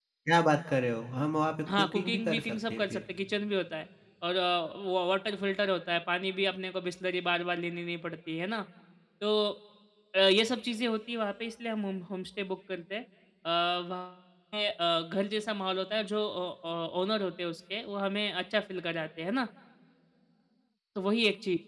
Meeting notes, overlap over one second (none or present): present